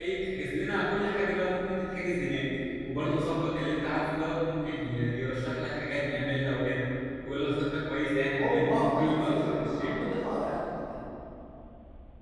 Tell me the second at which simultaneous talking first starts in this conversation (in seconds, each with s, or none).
8.4 s